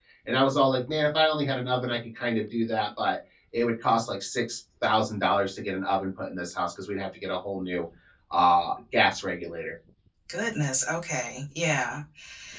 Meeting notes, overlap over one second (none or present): none